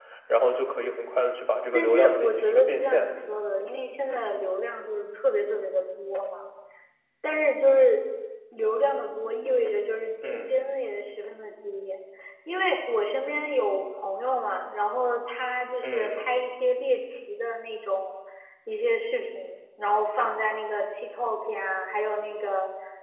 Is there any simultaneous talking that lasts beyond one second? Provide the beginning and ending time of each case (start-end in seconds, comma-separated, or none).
1.7-3.1